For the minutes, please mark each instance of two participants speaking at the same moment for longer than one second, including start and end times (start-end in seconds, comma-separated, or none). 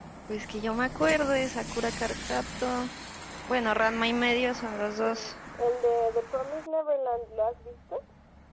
none